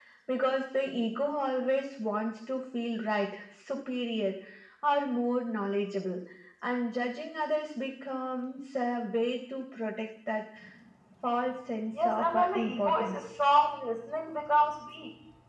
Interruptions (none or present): present